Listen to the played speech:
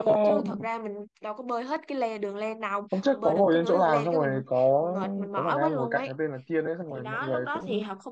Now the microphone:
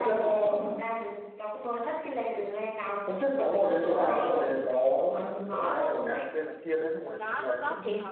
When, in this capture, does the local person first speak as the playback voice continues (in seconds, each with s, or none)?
3.0 s